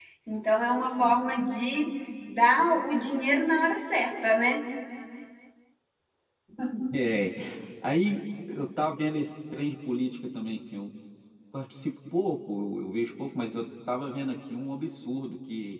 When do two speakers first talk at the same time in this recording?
none

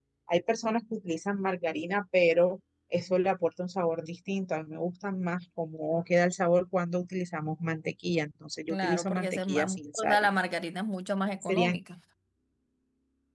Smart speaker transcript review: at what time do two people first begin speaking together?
8.7 s

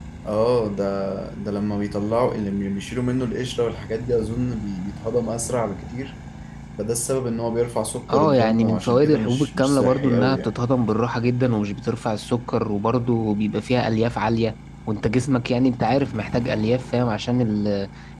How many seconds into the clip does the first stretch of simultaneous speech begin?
8.1 s

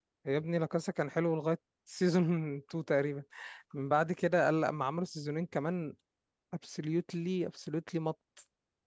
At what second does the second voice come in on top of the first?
none

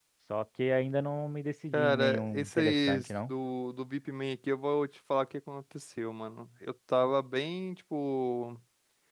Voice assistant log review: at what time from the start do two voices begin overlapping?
1.7 s

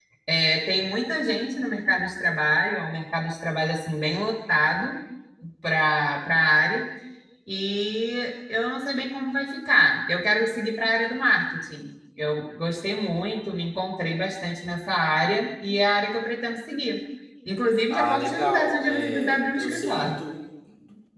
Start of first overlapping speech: 17.9 s

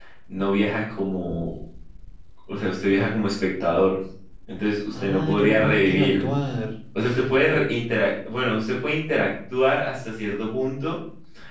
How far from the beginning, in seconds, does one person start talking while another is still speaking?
4.9 s

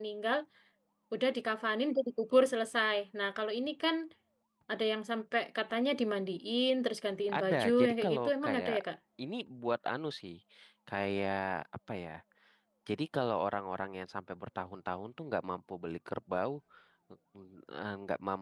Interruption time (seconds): 7.3 s

